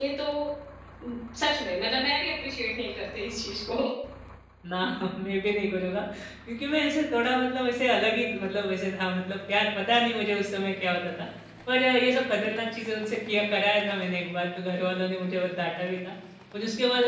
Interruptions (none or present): none